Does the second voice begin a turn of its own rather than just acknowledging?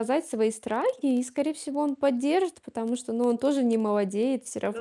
Yes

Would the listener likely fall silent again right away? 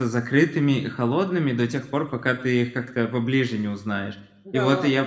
Yes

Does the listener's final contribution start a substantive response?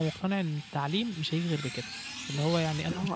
No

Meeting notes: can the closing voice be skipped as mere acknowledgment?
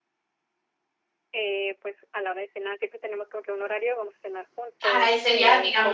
No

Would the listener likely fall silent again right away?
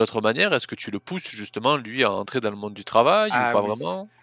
No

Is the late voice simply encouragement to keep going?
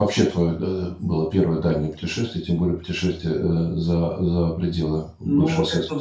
No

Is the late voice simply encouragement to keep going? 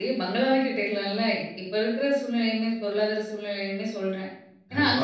No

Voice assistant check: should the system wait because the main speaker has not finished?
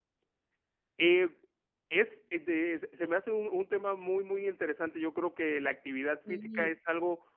Yes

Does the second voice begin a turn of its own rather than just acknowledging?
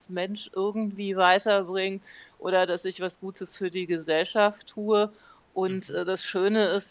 No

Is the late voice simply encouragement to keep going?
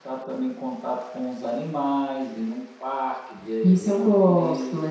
No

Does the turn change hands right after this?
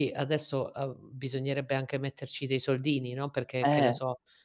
No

